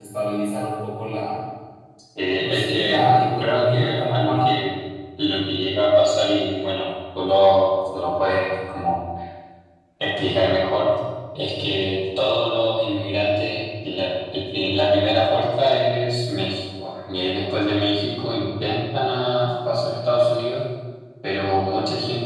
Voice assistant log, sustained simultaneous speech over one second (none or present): present